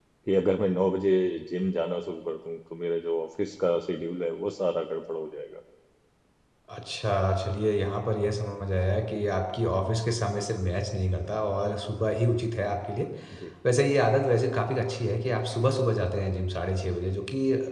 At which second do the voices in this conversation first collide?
none

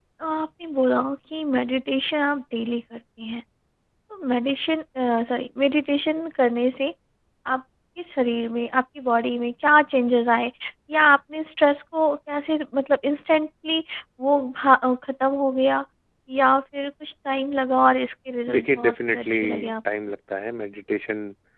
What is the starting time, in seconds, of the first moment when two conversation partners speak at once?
18.5 s

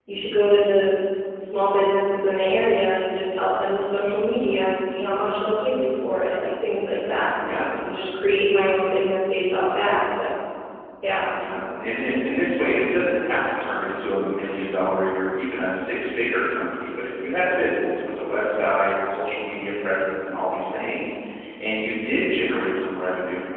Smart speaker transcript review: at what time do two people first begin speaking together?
none

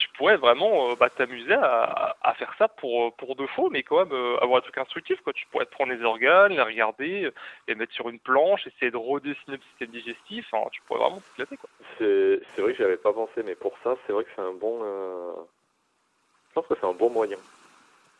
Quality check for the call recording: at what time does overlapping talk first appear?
none

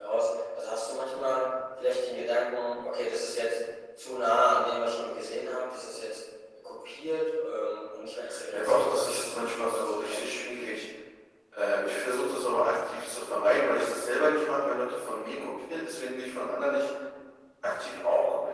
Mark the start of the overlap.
8.5 s

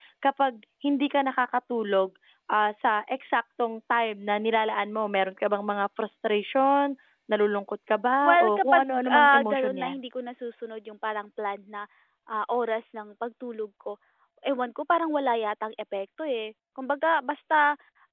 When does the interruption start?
8.2 s

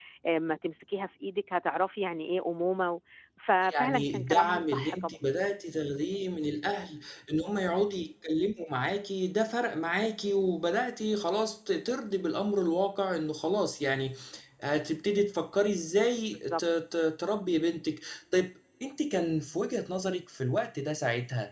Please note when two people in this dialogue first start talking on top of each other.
3.8 s

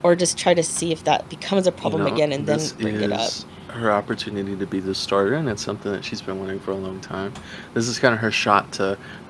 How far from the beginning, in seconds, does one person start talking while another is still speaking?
1.8 s

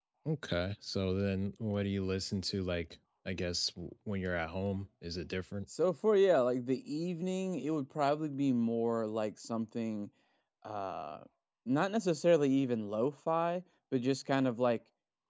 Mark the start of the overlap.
none

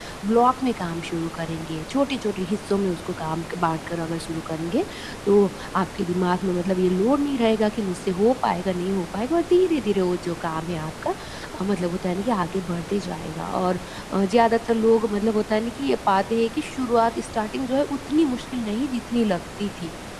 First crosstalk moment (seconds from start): none

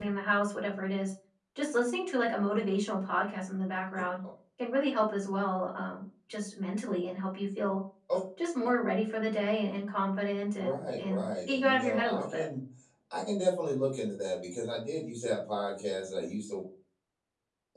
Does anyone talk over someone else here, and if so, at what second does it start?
10.6 s

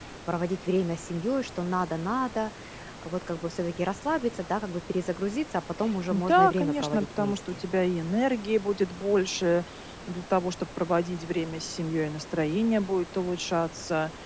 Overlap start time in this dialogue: 6.1 s

